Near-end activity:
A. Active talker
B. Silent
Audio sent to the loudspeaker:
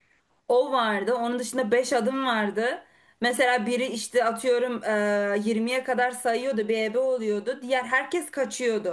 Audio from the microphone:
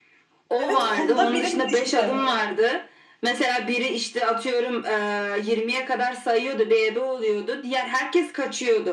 A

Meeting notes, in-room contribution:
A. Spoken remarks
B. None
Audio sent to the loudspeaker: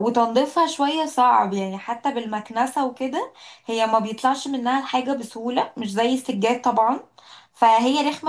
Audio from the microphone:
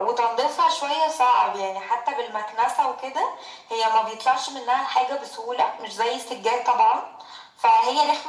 B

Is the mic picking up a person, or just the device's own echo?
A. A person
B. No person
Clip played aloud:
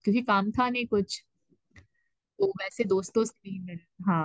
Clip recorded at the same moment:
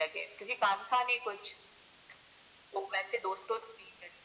B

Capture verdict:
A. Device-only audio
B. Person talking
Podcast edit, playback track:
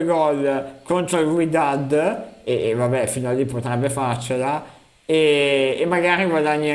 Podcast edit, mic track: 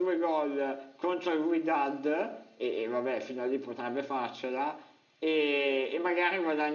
A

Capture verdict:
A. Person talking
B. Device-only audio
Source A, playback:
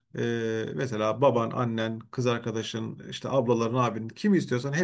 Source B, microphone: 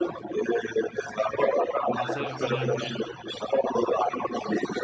A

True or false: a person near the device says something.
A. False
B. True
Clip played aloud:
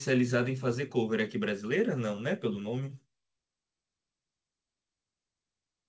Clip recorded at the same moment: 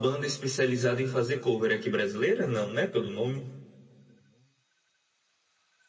A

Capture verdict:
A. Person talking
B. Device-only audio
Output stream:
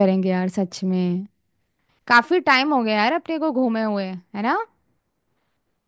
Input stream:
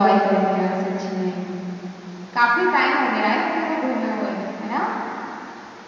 B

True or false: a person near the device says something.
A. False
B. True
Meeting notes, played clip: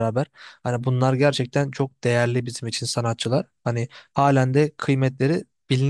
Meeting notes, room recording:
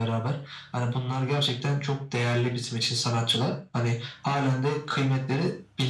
A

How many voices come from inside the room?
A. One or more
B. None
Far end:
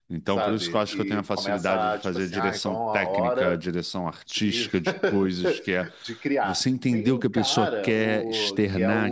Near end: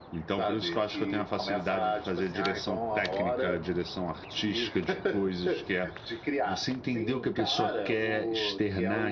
B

